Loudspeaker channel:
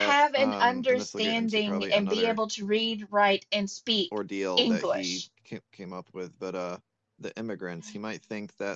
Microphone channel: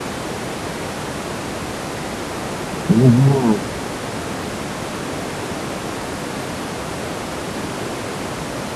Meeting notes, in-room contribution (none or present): present